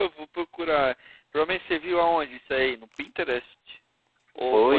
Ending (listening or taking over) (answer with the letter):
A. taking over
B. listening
A